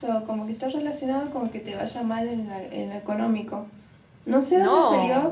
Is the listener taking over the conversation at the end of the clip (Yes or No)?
No